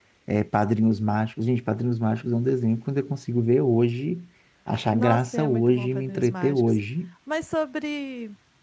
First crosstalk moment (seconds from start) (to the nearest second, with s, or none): 5 s